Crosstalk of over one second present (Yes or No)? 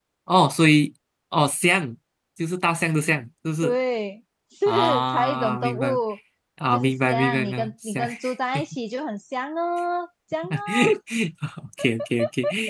Yes